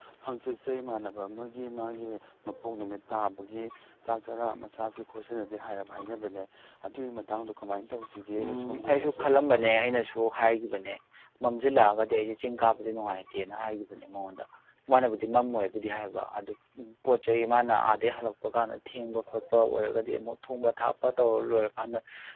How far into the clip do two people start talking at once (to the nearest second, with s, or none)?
8 s